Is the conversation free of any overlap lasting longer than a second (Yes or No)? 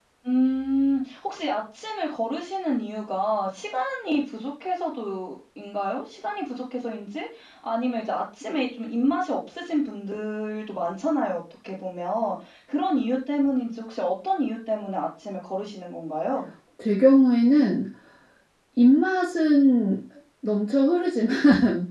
Yes